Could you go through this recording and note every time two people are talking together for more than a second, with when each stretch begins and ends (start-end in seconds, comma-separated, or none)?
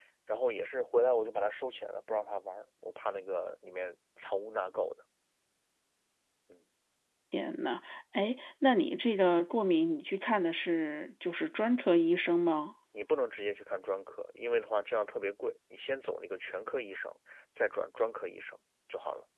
none